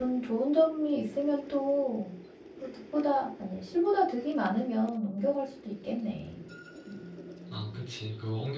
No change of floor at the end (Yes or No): No